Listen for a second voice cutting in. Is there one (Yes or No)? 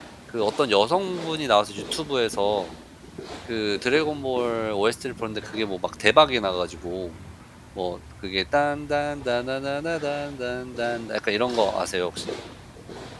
No